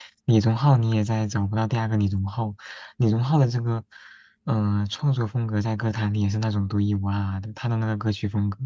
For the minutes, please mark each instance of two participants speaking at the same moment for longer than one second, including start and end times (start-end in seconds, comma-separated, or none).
none